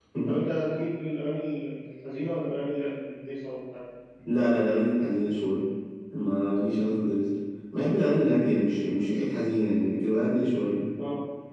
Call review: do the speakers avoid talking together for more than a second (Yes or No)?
Yes